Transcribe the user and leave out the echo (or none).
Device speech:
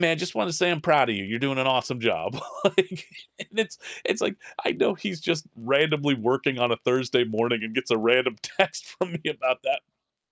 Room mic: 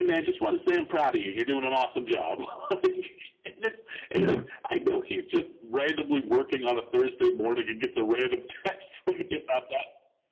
Yeah.